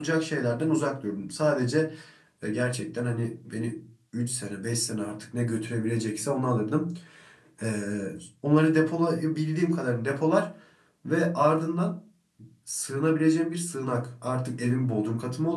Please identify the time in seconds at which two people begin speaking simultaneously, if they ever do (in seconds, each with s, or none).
none